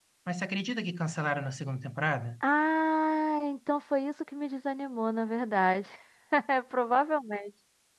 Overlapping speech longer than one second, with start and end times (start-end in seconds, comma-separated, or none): none